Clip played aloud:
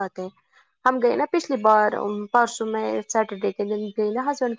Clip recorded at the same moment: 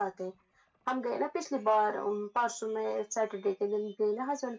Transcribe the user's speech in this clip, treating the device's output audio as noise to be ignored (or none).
none